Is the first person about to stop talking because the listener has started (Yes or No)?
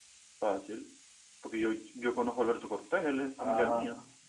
Yes